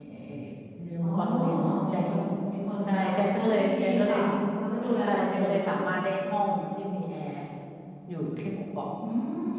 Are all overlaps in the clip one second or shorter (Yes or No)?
No